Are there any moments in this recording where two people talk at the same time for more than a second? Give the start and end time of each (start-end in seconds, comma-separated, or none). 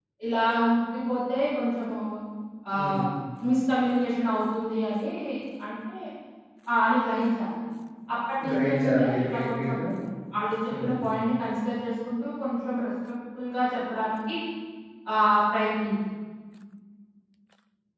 8.5-9.7